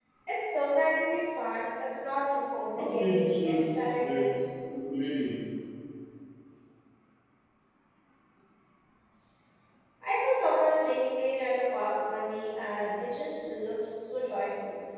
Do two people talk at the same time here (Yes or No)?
Yes